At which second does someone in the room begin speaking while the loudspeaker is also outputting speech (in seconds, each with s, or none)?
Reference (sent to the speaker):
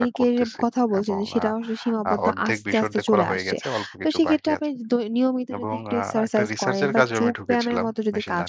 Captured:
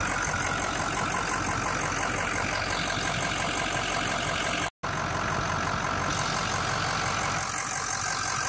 none